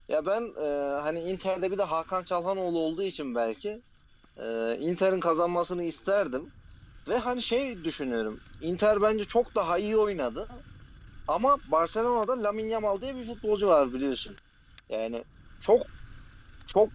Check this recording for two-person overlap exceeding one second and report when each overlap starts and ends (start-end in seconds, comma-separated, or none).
none